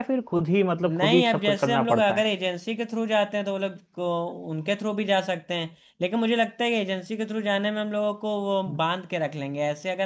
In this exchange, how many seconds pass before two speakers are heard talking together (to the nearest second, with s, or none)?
1 s